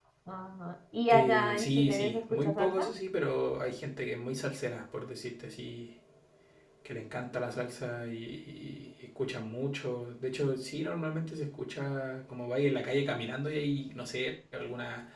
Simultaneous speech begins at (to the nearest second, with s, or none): 1 s